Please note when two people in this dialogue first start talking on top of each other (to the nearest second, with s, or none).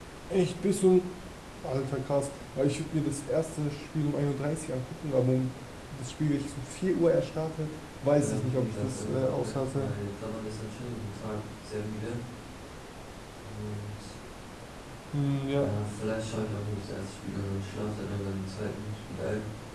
8 s